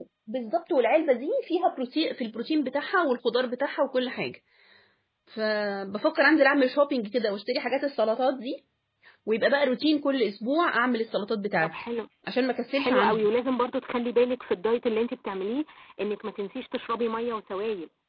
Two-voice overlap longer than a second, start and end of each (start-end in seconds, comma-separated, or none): none